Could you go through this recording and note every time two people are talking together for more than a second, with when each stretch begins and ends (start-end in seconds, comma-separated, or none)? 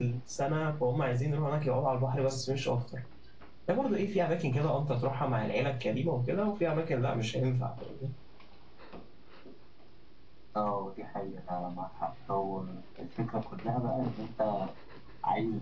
none